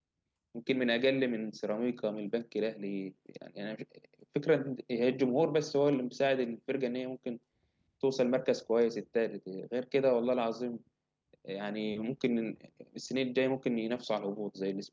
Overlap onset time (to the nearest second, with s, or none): none